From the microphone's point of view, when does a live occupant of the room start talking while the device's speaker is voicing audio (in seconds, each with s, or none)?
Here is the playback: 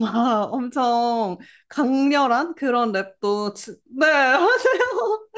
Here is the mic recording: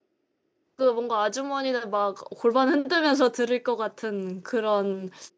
0.8 s